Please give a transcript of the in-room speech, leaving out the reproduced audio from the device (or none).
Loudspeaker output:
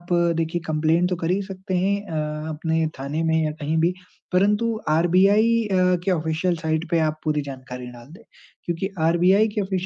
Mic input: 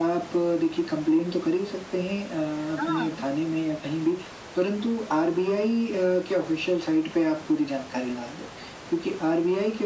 हाँ।